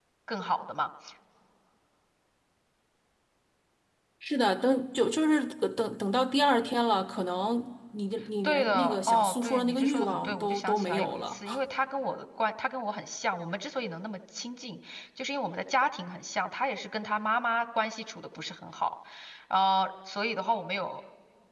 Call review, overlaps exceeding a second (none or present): present